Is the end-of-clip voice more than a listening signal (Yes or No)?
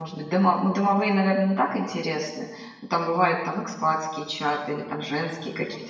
Yes